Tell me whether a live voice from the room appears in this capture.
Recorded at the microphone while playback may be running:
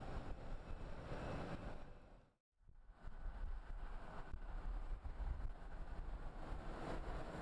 No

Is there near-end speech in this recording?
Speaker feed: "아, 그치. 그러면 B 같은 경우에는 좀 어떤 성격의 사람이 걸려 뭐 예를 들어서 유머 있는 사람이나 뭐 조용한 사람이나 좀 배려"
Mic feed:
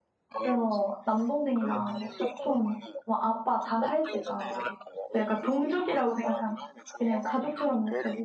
Yes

